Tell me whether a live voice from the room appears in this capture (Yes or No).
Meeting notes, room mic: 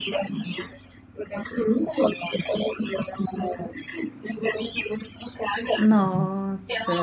Yes